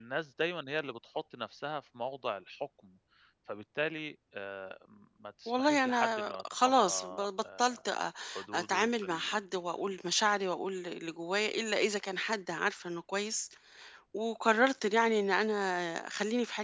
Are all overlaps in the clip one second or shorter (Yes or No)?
No